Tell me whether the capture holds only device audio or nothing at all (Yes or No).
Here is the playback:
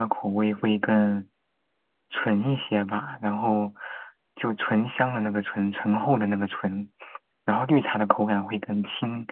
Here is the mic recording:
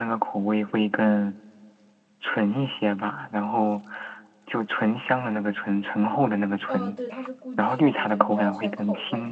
No